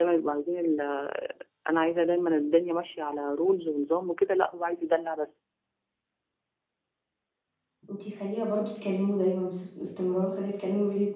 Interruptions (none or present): none